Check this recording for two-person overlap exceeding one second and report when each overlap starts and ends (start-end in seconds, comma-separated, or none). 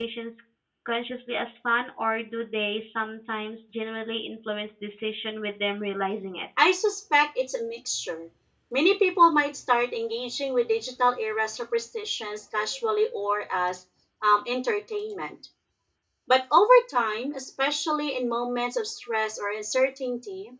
none